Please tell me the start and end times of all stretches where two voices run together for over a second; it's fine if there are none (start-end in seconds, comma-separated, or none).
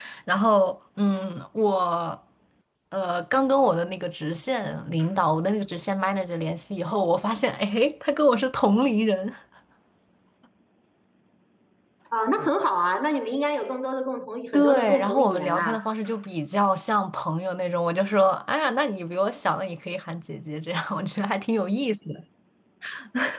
14.5-15.8